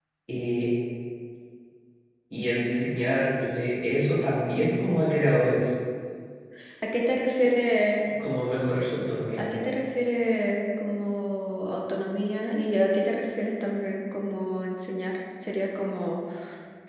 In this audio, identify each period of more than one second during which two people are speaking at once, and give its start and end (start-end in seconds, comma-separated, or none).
none